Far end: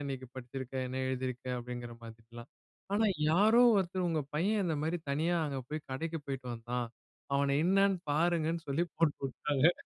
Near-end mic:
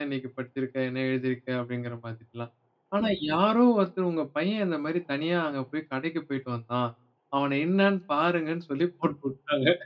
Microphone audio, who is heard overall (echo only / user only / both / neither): echo only